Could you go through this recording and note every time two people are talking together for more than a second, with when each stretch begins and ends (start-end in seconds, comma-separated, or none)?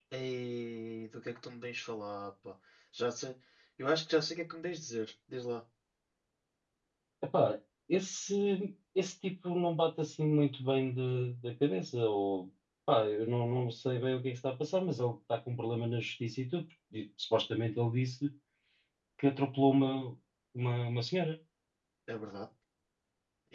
none